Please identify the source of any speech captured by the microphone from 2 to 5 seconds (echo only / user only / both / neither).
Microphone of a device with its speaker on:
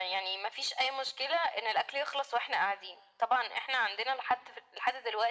echo only